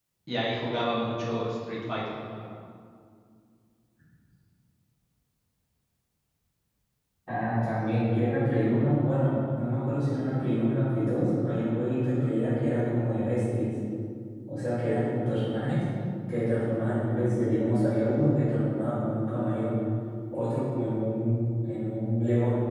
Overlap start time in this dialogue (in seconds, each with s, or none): none